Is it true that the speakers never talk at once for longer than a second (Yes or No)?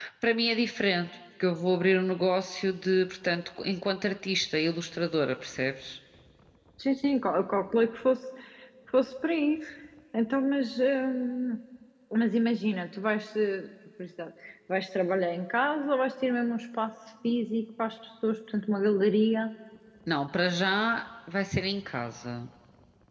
Yes